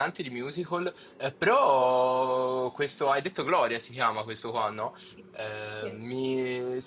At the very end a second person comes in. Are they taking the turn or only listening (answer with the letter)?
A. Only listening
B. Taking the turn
A